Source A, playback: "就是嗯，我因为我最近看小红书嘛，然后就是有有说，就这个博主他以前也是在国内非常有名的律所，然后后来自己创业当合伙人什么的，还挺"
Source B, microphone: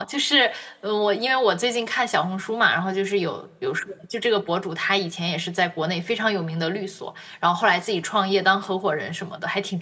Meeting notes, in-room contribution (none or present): none